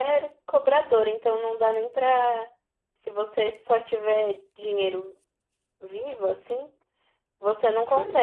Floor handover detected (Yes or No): No